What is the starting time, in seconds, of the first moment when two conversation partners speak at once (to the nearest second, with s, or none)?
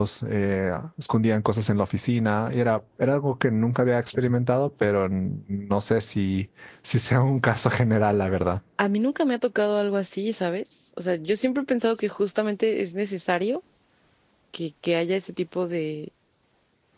none